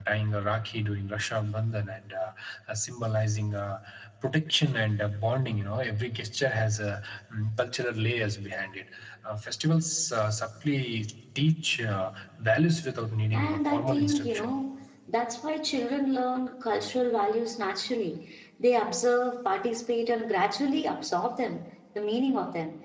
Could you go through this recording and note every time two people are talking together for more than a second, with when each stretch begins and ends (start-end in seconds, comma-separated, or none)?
13.3-14.5